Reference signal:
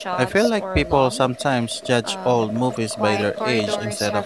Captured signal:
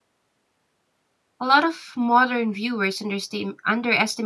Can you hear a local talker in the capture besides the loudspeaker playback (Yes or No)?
Yes